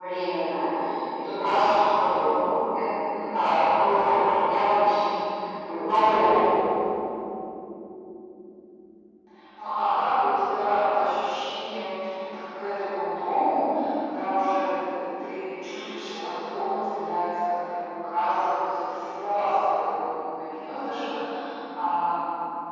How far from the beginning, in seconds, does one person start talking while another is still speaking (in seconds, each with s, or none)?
3.3 s